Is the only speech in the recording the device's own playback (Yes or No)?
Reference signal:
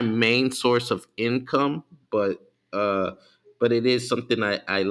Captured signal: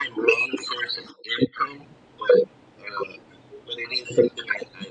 Yes